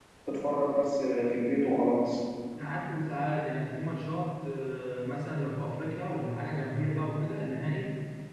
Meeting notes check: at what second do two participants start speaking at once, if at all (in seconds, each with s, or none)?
none